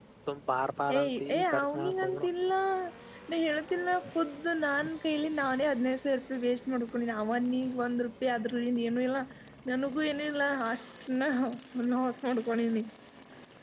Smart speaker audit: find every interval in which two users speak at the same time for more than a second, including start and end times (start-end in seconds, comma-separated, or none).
1.0-2.2